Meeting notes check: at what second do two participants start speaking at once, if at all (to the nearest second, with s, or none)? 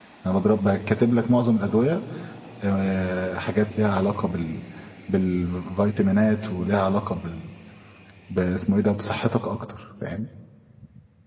none